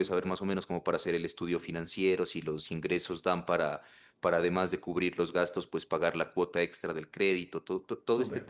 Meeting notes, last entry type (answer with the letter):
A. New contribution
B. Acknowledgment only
A